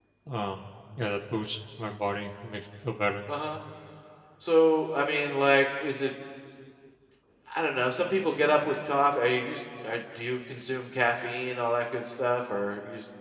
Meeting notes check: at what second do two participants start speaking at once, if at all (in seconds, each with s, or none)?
none